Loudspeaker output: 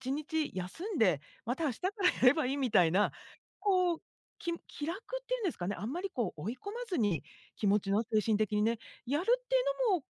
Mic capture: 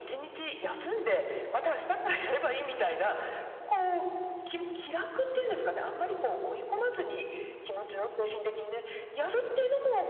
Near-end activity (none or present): none